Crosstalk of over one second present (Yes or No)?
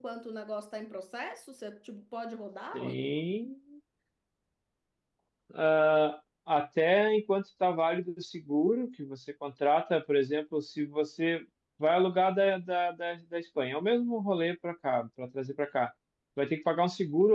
No